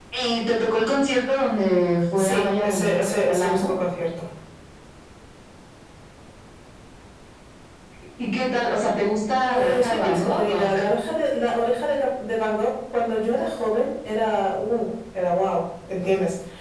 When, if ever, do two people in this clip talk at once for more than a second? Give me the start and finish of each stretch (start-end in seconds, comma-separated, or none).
2.2-3.7, 9.4-10.8